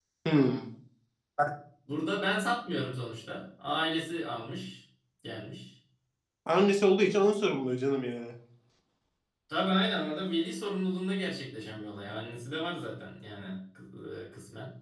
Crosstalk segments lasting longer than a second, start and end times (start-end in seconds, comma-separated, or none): none